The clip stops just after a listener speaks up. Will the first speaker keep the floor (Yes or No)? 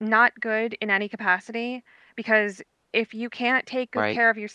Yes